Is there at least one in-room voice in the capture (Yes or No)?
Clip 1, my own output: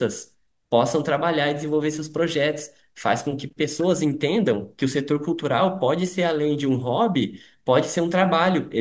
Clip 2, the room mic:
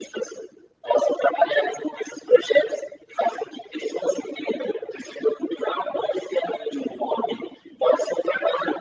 No